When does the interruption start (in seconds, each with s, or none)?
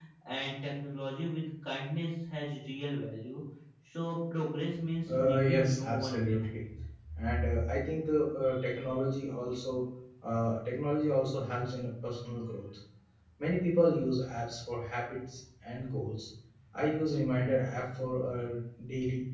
5.1 s